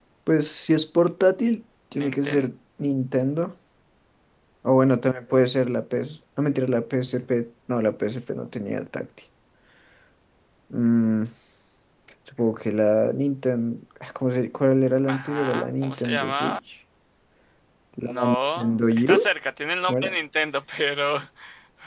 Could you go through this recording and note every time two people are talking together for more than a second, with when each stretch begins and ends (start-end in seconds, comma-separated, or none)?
15.0-16.6, 18.0-19.3